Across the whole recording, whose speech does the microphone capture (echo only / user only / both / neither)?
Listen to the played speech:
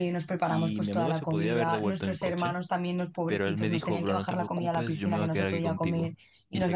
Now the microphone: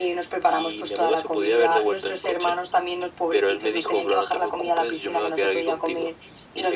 echo only